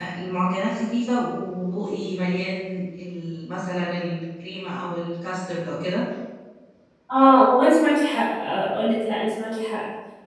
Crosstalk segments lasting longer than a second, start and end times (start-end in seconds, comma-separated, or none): none